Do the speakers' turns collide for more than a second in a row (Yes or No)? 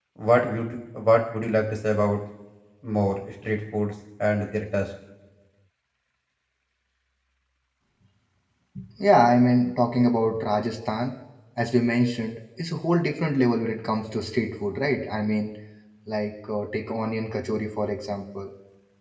No